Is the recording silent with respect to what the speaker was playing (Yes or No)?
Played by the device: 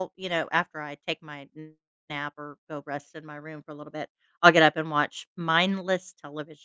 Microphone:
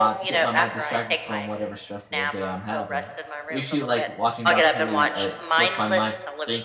No